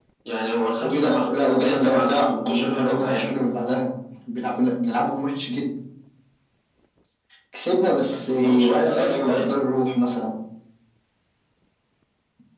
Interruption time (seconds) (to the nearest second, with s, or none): 1 s